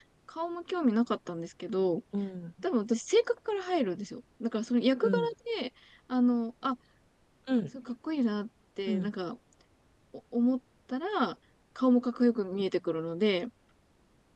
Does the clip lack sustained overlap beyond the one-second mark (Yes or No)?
Yes